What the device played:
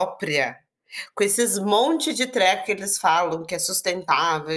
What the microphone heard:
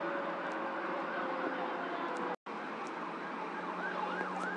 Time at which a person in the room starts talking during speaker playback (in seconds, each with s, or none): none